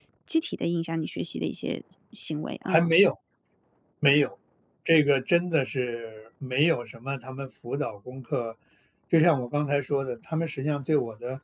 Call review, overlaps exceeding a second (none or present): none